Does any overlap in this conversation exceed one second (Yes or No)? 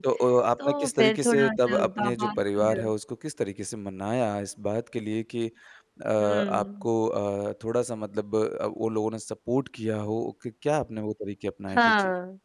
Yes